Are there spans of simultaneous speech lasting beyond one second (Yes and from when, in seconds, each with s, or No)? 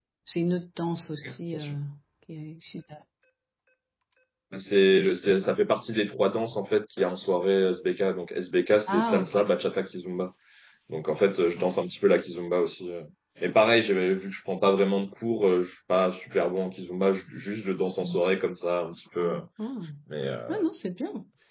No